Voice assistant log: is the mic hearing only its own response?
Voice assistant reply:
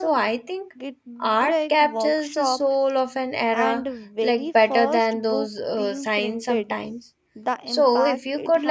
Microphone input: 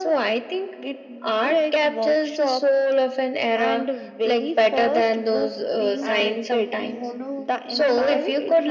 No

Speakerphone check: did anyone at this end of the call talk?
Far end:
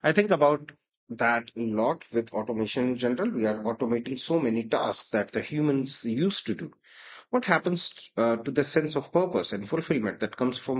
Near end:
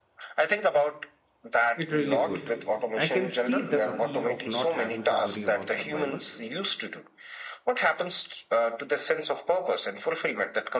Yes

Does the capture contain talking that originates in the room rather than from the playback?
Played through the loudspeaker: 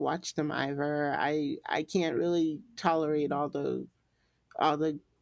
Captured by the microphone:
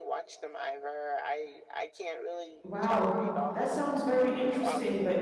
Yes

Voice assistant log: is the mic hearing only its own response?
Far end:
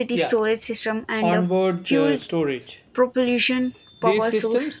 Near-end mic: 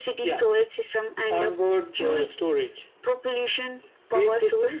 Yes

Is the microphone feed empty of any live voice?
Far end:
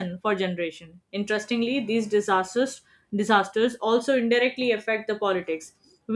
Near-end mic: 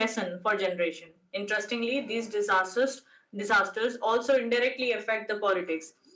Yes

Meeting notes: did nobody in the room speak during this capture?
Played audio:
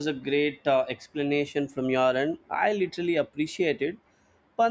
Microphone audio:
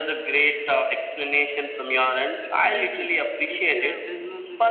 No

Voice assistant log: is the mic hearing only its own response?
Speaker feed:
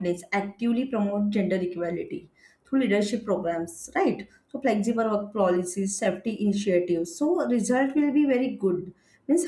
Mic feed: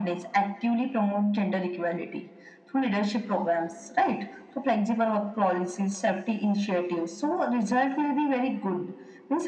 Yes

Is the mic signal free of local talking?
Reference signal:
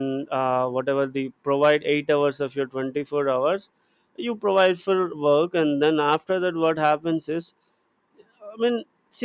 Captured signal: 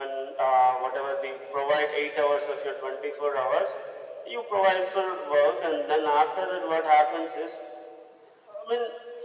Yes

